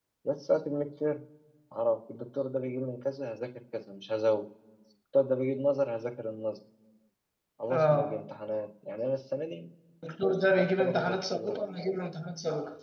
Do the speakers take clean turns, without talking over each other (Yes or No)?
No